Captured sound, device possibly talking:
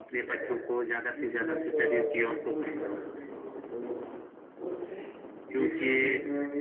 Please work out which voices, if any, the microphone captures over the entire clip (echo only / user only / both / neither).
both